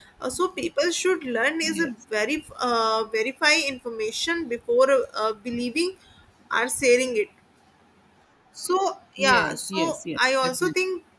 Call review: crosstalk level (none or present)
present